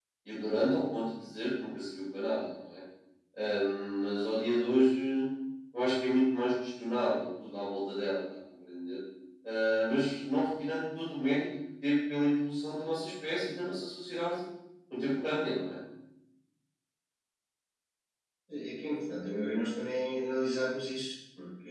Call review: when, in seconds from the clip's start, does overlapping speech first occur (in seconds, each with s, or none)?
none